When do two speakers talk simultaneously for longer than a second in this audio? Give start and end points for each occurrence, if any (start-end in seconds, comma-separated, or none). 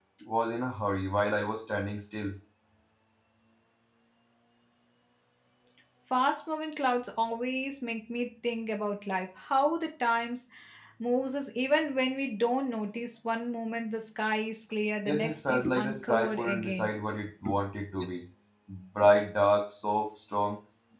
15.1-16.9